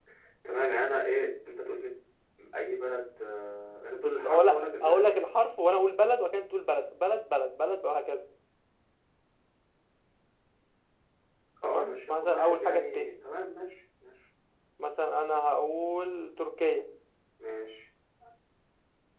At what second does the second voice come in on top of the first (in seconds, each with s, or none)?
3.9 s